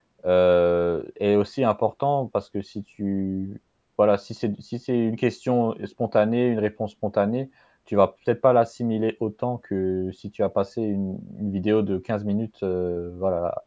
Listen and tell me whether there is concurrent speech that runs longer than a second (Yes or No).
No